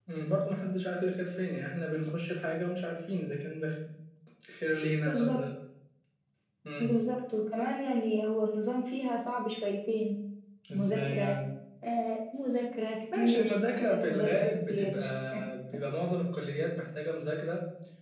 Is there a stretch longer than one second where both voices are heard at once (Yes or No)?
Yes